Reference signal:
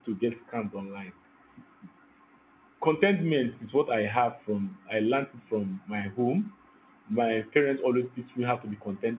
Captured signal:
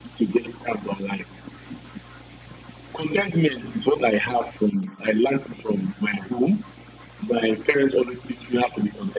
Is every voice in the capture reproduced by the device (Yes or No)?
Yes